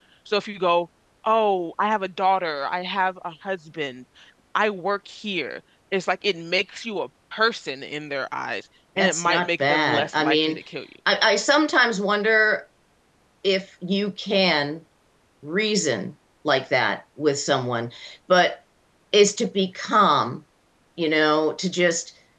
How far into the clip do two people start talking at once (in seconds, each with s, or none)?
9.0 s